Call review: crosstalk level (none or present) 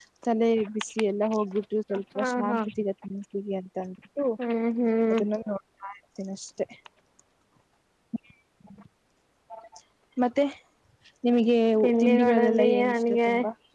present